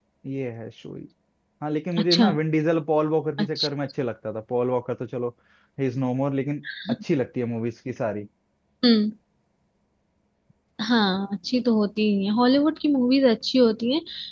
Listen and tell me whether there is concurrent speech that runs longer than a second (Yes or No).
No